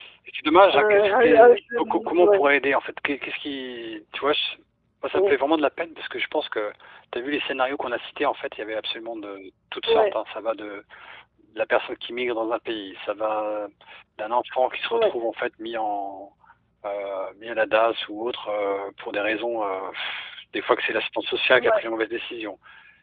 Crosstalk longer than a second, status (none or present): present